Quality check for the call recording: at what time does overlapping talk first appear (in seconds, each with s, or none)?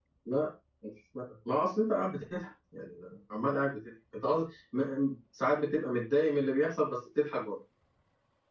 none